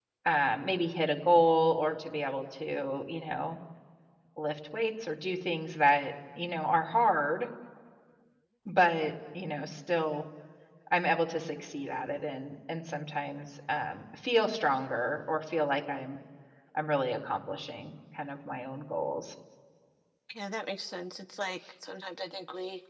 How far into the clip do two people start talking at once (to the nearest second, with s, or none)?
none